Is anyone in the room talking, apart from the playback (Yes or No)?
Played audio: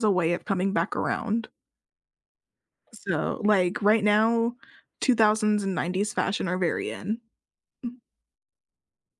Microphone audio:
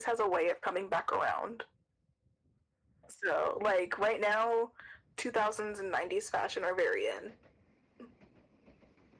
No